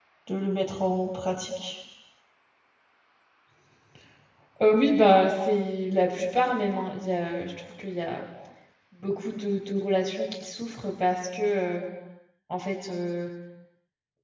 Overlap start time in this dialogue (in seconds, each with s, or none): none